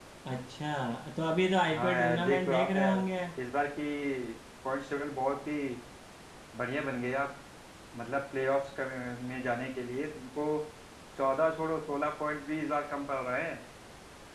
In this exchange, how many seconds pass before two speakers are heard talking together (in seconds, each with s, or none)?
1.7 s